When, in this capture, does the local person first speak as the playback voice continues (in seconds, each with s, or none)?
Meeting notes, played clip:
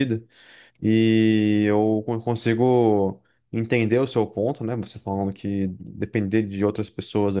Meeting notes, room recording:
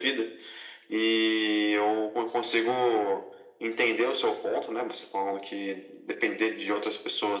none